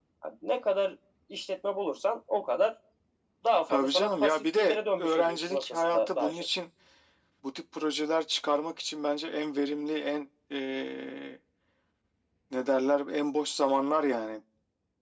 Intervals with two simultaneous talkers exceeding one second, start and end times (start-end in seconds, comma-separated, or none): 3.7-6.5